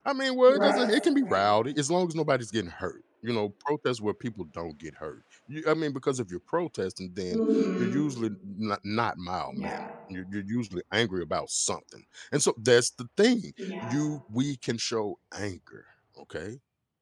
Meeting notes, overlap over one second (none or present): none